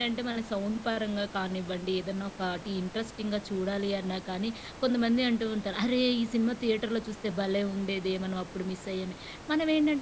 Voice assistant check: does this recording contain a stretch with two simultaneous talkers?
No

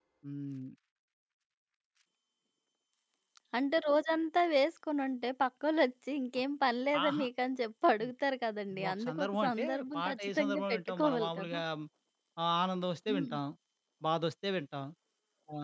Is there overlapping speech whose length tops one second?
Yes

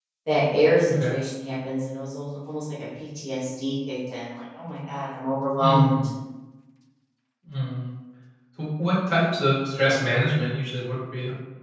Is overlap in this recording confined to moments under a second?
Yes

